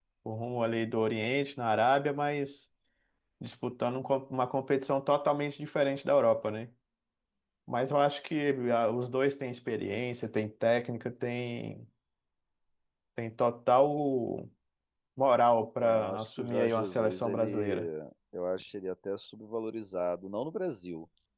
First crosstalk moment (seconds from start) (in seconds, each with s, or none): 15.8 s